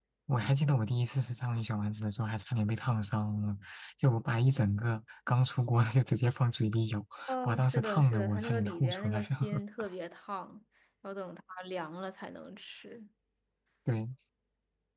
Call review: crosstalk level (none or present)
present